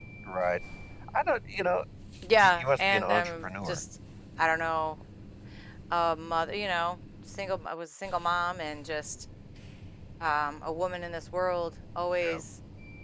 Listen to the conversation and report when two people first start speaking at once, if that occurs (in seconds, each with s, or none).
2.4 s